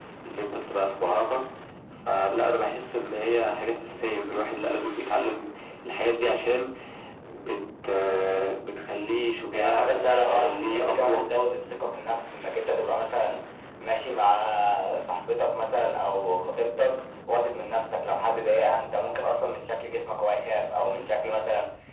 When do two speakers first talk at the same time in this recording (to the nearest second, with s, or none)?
10 s